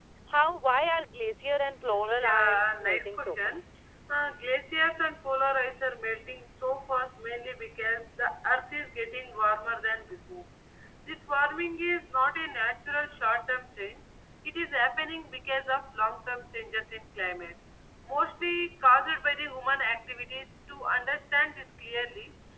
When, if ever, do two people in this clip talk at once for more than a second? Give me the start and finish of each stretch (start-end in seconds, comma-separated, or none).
2.1-3.6